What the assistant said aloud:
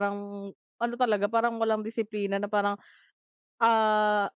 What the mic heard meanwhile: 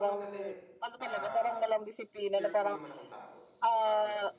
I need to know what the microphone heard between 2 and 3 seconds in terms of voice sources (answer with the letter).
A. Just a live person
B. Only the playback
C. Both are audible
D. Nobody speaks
C